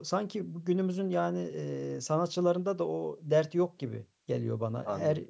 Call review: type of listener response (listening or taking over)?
listening